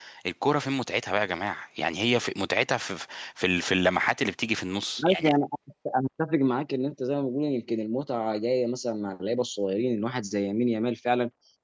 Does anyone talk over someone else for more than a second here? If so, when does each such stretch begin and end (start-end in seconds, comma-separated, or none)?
none